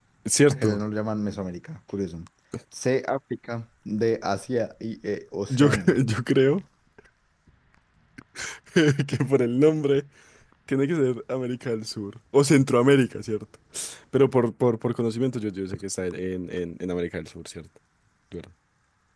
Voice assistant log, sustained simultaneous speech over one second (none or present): none